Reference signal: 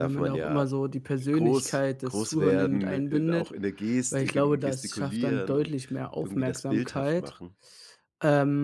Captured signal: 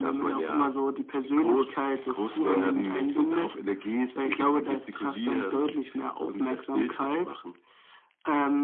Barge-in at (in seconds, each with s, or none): none